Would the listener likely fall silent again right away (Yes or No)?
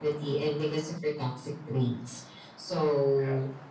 Yes